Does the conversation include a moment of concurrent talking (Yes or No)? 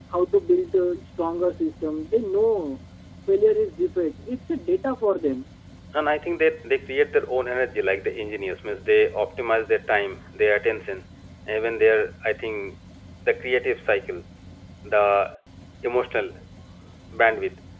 No